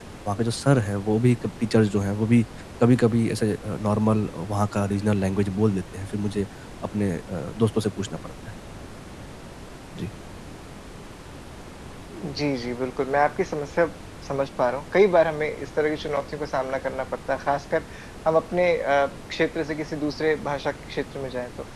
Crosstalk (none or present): none